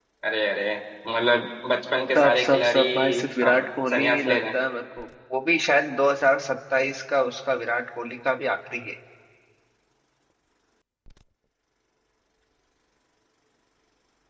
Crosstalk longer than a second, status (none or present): present